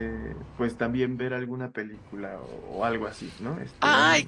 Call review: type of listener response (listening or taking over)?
taking over